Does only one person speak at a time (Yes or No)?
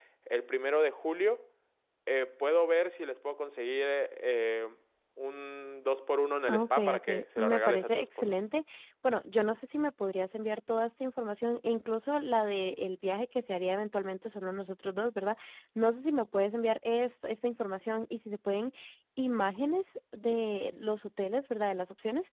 No